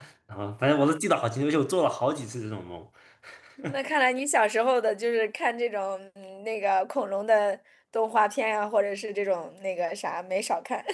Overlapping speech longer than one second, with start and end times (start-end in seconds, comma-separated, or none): none